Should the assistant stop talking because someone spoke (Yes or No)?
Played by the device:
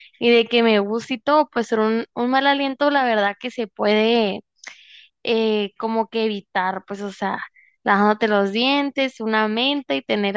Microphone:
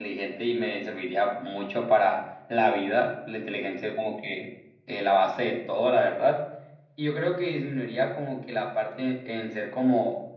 Yes